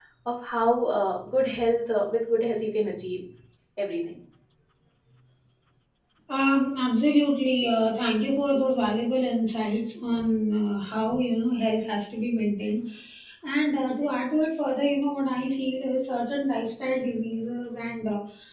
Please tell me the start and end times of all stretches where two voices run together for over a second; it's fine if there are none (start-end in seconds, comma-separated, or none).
none